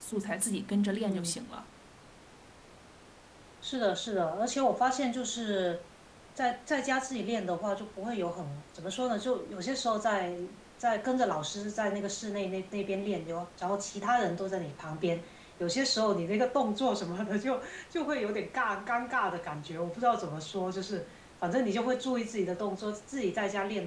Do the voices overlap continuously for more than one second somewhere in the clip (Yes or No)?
No